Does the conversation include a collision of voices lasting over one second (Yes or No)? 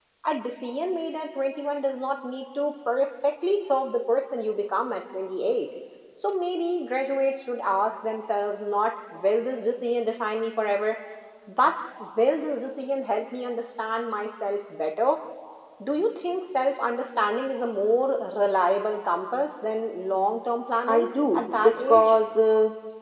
Yes